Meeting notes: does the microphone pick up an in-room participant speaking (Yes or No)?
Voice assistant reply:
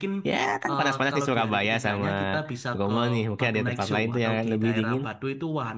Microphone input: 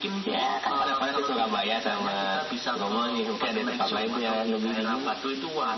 No